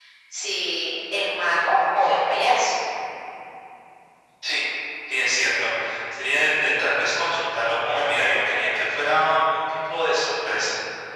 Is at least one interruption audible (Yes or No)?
No